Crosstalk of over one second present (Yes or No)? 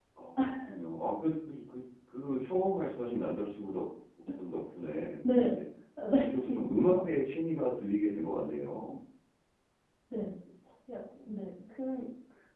No